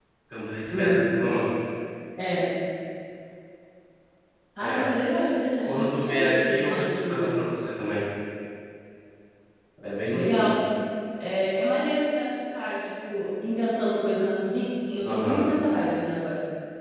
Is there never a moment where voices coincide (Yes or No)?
No